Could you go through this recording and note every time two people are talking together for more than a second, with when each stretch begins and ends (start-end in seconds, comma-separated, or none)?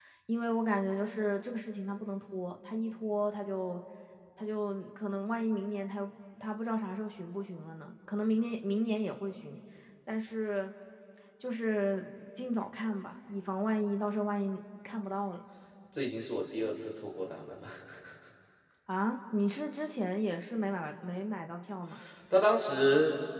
none